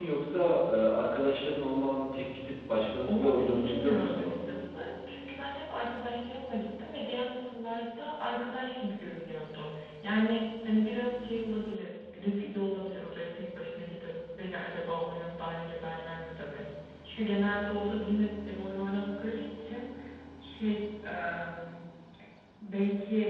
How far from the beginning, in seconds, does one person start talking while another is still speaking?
3.0 s

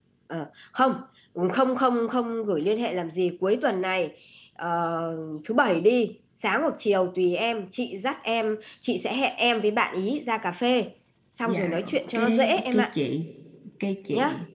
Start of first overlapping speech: 11.4 s

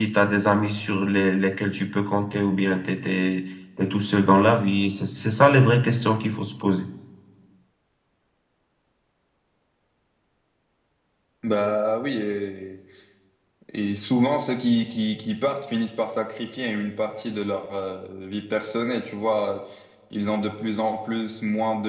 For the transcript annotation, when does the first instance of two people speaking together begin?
none

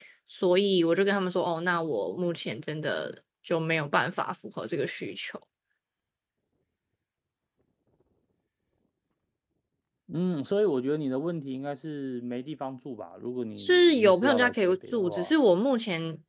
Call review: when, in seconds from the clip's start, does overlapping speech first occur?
13.6 s

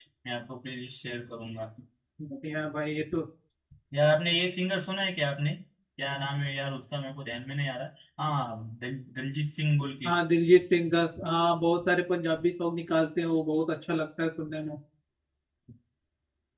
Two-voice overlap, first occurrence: none

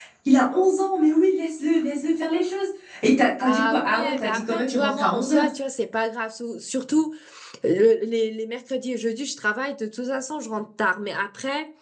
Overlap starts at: 3.5 s

